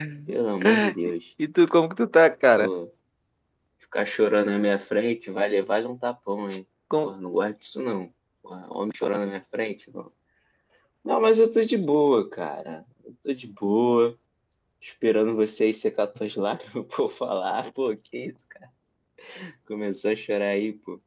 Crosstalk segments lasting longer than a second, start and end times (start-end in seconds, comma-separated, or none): none